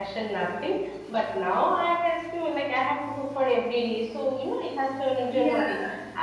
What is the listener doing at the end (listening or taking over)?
listening